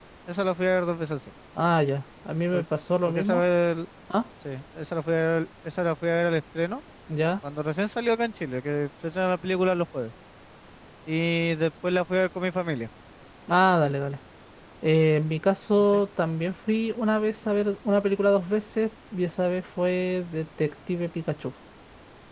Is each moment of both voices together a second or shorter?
Yes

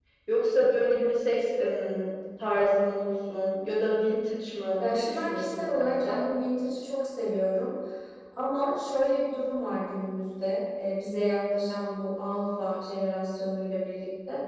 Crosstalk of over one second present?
Yes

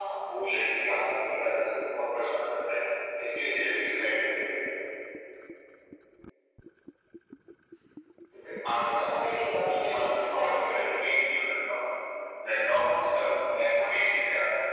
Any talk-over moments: Yes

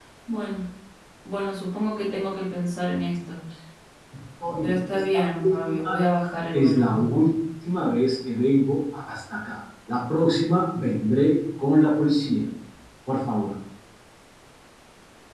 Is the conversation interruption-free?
No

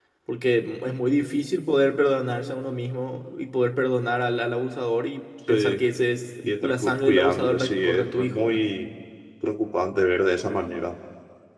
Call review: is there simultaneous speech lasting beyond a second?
Yes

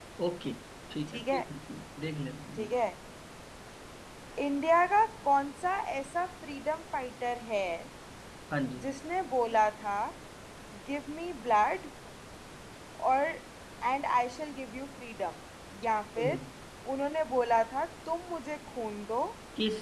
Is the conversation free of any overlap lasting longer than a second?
Yes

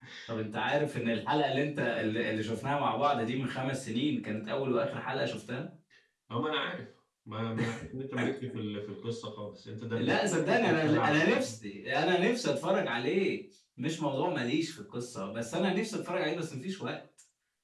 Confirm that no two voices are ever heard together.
No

